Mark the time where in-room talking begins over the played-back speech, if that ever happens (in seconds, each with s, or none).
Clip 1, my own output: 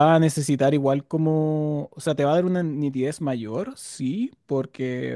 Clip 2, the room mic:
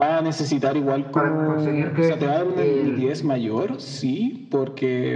1.1 s